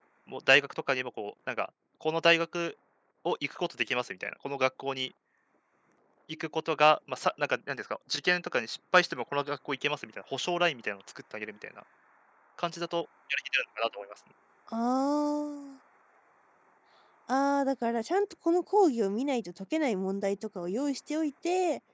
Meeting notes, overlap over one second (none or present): none